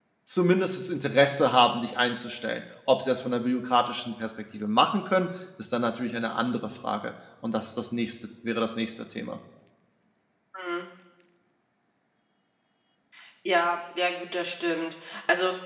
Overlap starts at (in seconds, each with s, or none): none